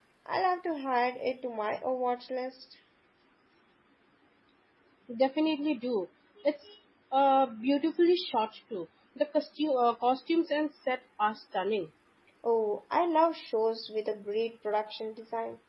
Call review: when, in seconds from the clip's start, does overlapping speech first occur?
none

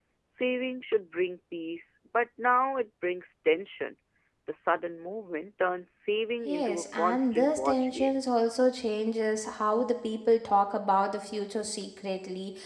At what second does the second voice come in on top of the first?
6.5 s

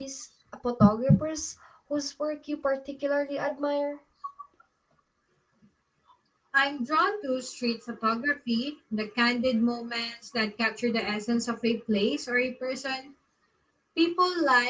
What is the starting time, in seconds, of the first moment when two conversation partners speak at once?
none

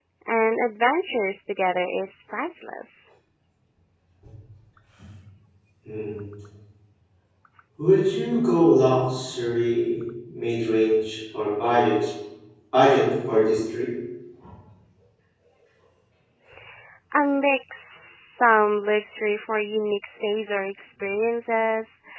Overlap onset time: none

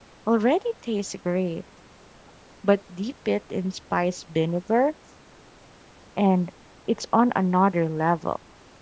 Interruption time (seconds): none

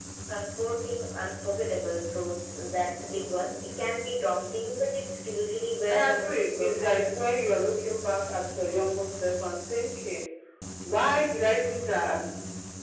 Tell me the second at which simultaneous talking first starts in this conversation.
5.8 s

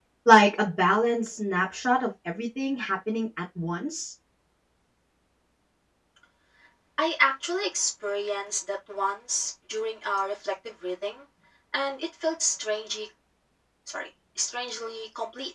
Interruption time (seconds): none

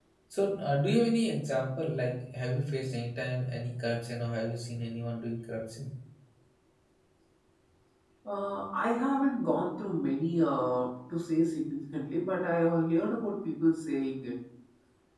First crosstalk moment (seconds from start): none

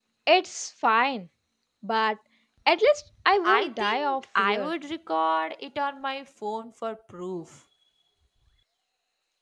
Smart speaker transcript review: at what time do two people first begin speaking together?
3.4 s

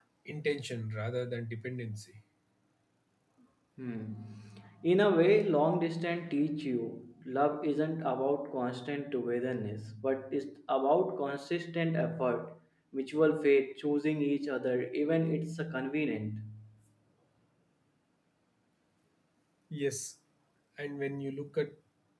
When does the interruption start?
none

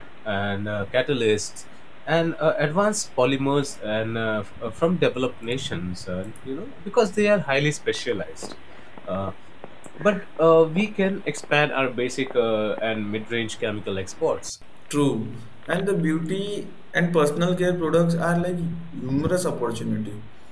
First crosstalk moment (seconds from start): none

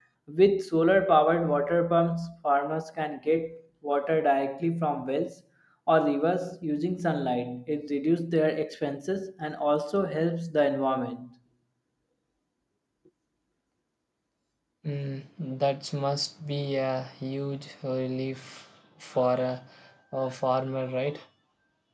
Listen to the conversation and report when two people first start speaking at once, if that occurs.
none

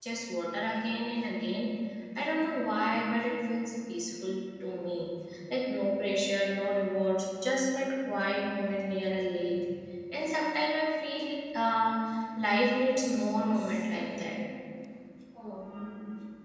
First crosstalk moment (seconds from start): 12.8 s

